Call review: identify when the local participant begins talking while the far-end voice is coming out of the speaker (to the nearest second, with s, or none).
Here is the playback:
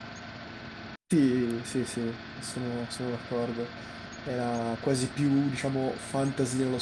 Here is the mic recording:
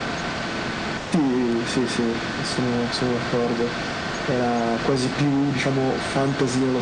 none